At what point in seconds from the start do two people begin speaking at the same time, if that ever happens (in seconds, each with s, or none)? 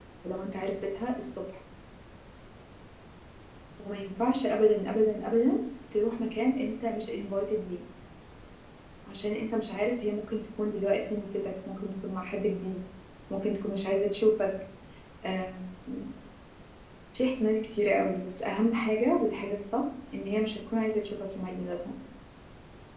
none